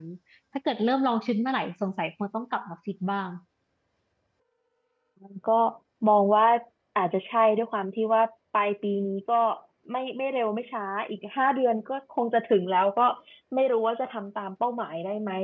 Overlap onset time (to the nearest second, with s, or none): none